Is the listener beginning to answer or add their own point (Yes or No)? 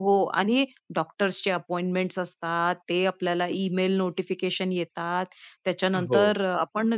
No